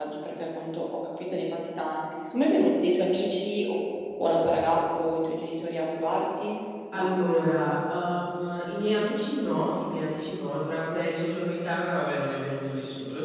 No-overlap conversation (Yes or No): Yes